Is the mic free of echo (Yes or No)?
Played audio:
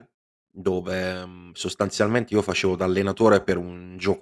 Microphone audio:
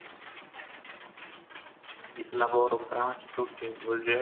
Yes